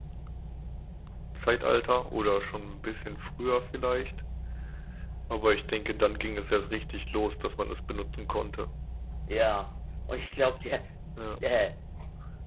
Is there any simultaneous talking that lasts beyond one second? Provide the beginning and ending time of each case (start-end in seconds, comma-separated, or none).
none